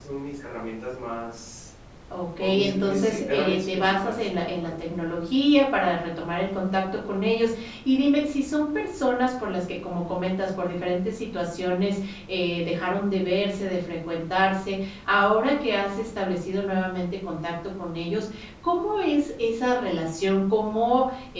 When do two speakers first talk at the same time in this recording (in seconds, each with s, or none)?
2.4 s